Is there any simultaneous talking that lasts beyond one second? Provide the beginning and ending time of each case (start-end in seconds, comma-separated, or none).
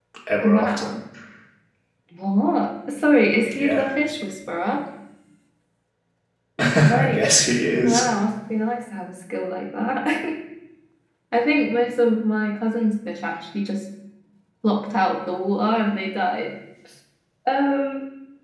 none